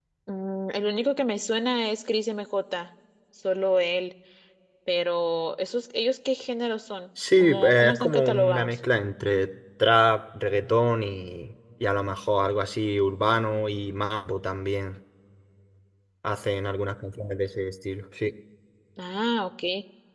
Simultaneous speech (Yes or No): Yes